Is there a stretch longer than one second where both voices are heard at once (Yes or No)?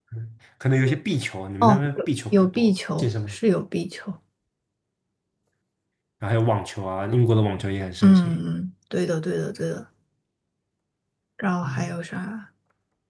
Yes